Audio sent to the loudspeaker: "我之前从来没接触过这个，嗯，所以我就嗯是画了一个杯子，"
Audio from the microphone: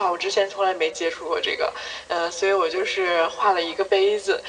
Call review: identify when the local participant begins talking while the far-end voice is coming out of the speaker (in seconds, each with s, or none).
none